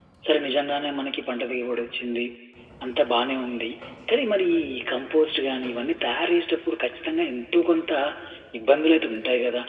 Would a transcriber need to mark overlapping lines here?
No

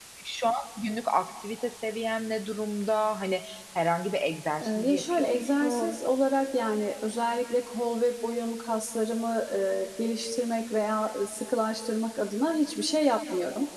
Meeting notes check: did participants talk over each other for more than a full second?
Yes, from 4.6 s

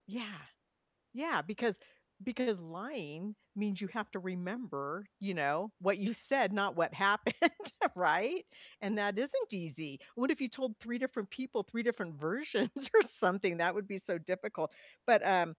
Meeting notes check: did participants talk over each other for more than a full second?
No

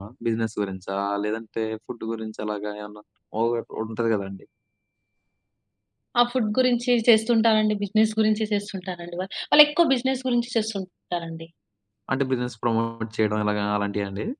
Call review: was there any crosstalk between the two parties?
No

